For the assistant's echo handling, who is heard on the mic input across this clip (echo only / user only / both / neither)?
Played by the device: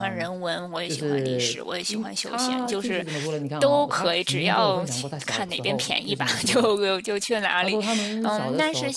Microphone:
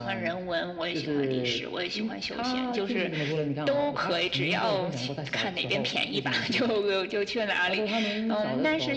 echo only